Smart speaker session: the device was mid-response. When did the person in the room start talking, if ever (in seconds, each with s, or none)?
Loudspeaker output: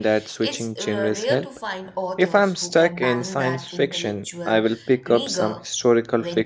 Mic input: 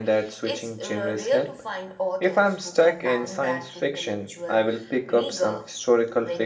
none